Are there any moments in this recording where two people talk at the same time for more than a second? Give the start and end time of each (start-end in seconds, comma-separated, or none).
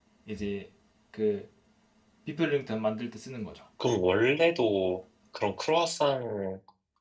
none